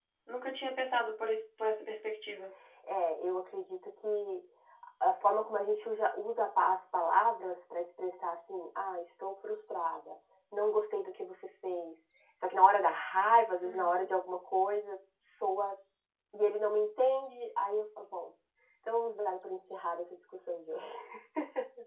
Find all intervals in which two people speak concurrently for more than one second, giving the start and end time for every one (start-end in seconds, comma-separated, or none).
none